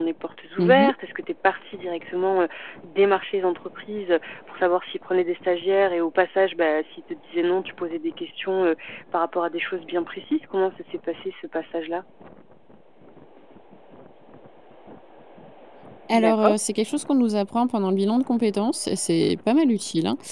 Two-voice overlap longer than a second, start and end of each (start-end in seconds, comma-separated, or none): none